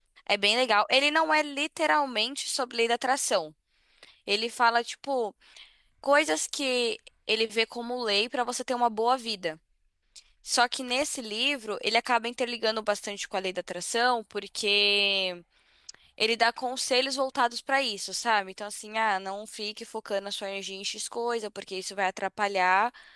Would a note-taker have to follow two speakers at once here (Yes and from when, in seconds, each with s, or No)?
No